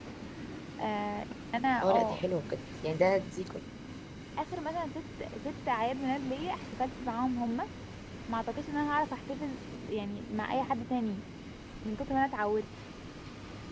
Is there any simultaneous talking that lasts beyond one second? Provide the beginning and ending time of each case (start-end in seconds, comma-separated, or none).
none